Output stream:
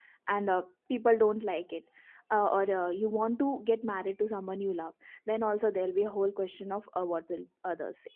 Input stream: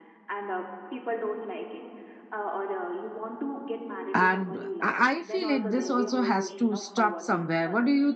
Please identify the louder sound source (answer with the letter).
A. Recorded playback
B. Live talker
B